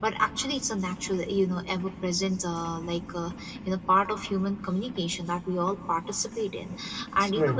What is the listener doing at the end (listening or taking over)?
listening